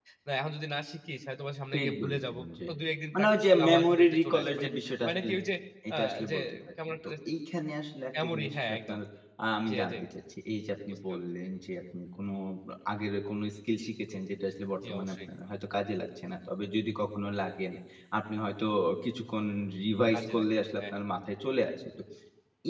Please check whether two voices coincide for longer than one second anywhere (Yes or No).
Yes